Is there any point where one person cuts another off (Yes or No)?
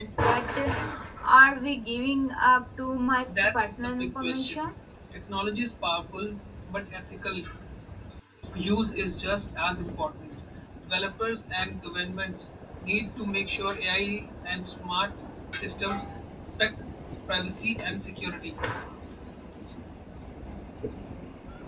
Yes